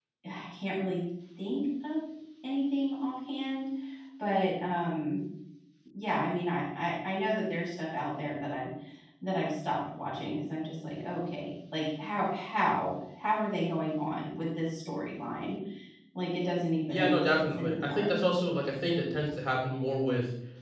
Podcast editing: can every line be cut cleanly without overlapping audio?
No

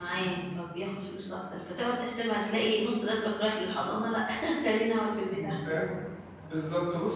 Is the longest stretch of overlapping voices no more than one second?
Yes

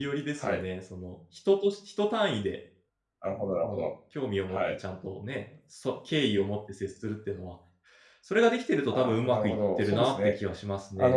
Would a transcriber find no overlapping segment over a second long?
No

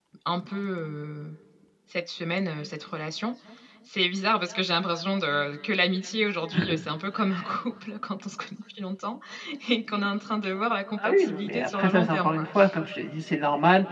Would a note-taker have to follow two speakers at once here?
Yes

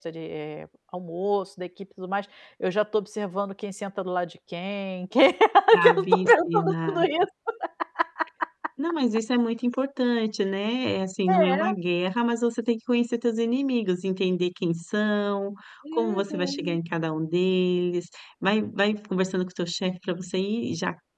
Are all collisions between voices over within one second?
No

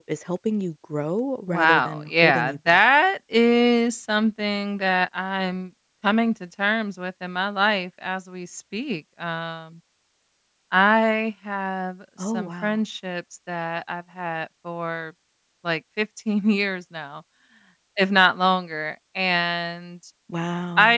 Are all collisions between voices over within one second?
No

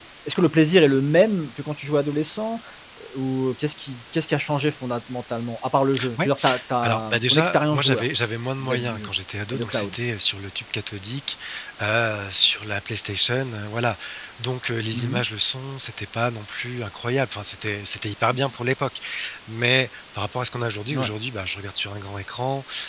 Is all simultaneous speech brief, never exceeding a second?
No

